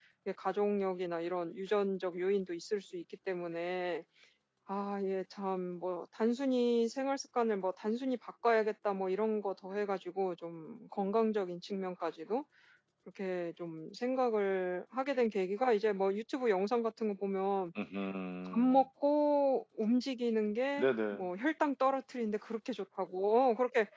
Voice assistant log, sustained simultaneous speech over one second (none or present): none